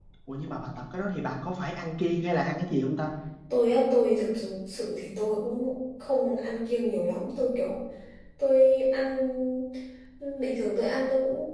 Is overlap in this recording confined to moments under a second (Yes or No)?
Yes